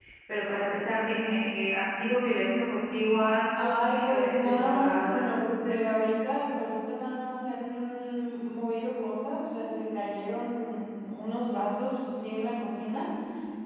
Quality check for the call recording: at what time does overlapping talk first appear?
4 s

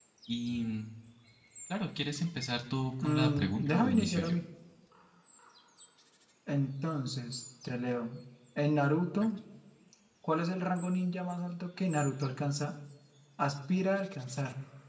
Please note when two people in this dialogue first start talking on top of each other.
3 s

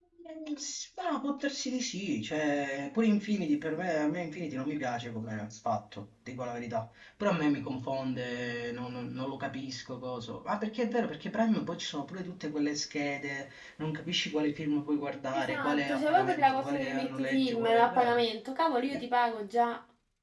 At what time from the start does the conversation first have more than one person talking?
15 s

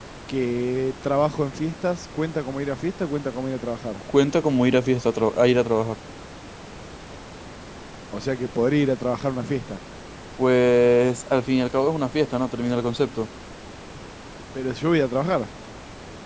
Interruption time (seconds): none

